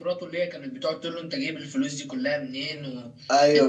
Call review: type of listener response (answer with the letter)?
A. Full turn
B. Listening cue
A